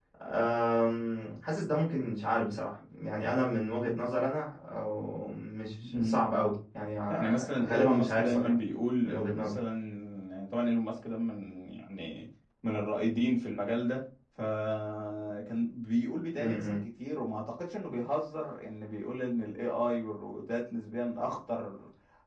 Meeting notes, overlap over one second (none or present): present